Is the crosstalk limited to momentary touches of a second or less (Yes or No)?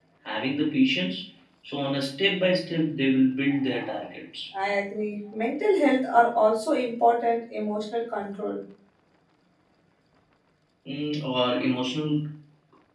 Yes